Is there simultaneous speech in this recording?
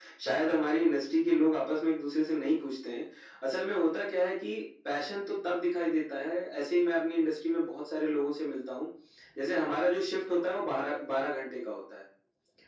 No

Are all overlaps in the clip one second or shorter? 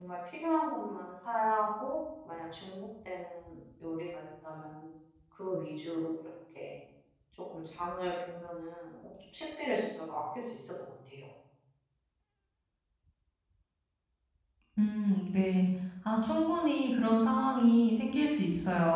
Yes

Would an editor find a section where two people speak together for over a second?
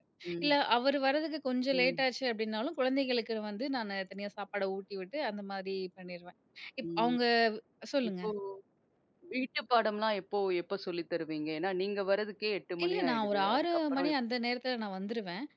Yes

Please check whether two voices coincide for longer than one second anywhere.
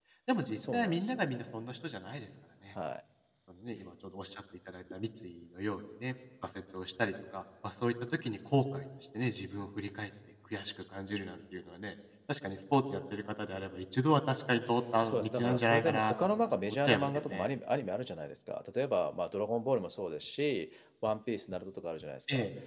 Yes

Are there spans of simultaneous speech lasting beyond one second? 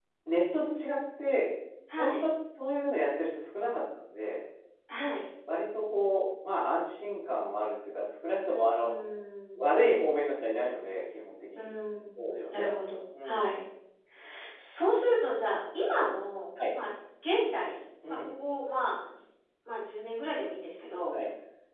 No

